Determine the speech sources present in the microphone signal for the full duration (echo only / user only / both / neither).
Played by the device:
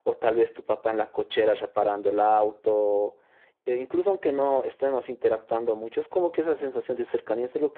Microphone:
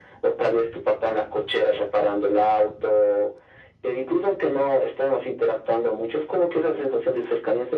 echo only